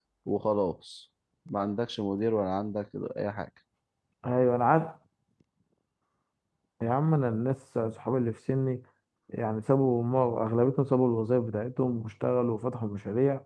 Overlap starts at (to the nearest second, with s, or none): none